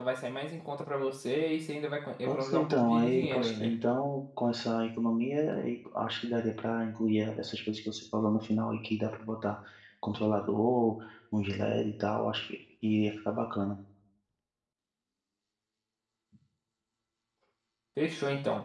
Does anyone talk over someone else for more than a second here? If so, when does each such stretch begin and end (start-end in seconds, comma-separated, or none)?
2.2-3.7